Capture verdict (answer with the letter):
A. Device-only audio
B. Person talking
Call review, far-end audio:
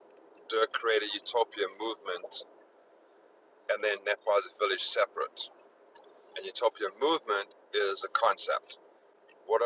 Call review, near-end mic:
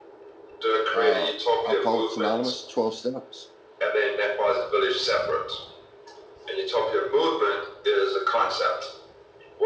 B